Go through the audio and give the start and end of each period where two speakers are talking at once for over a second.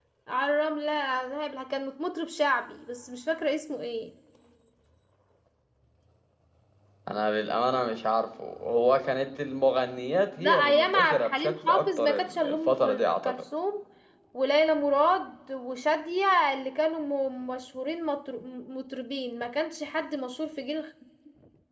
10.4-13.3

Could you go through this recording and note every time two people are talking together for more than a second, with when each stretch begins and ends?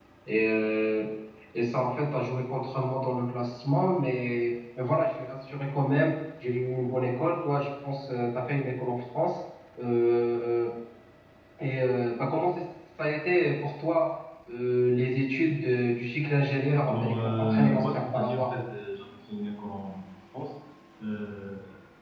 16.9-18.5

